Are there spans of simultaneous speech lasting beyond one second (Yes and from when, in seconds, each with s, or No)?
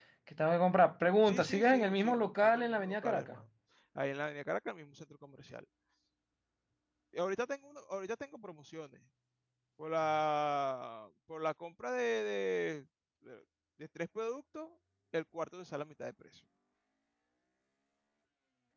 Yes, from 1.2 s